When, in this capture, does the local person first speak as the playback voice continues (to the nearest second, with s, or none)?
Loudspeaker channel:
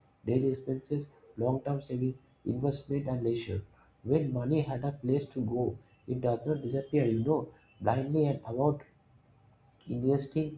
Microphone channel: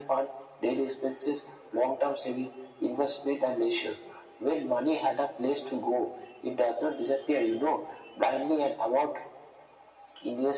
none